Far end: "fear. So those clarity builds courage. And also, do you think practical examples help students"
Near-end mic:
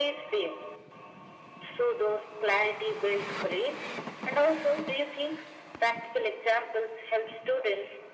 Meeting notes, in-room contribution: none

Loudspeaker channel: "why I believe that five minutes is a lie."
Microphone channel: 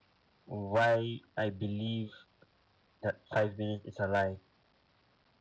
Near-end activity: none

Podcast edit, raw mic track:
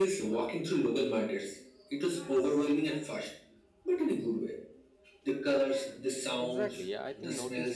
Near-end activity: present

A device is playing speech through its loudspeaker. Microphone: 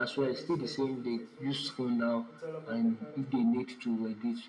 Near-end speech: present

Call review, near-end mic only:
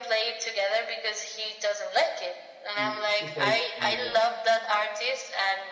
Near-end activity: present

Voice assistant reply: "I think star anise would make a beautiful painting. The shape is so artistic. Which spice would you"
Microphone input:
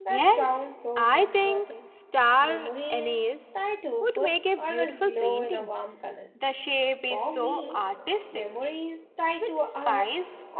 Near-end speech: present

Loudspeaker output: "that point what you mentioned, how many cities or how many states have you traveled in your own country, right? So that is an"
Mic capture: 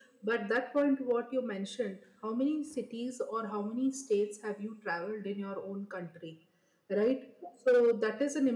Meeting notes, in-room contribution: none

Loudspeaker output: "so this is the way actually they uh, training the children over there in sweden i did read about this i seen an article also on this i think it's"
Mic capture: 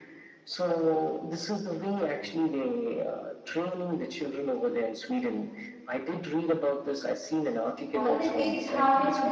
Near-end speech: present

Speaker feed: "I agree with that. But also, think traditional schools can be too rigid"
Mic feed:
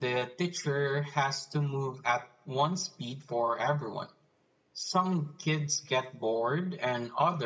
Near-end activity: present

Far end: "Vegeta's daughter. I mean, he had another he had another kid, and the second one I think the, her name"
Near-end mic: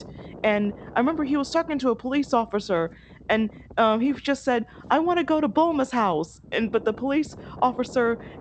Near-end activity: present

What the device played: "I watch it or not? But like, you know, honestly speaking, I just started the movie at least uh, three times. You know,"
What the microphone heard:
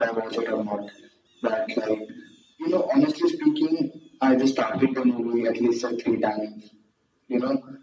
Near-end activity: none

